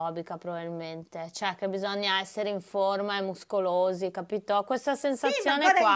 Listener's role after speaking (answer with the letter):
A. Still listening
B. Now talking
B